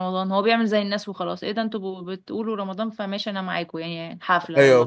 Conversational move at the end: taking over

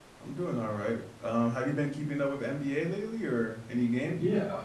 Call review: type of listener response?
taking over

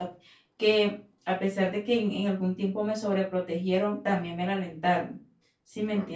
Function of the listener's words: taking over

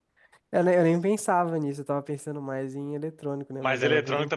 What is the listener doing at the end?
taking over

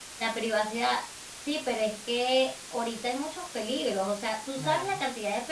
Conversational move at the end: listening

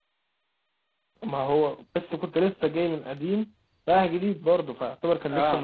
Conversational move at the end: taking over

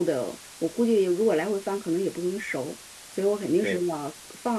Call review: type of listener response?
listening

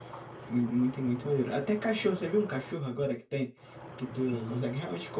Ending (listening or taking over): listening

